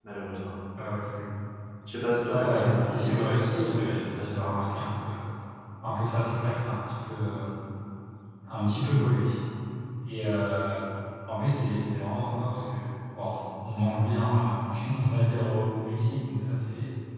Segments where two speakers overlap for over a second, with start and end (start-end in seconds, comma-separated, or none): 2.3-4.4